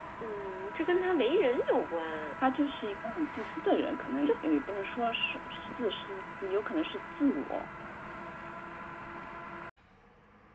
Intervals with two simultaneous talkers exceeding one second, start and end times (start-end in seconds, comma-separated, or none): none